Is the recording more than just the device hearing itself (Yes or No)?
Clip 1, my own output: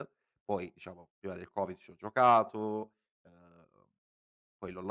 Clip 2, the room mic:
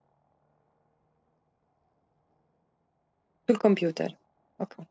Yes